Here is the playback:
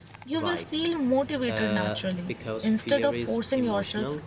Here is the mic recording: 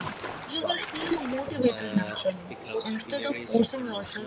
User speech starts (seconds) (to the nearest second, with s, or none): none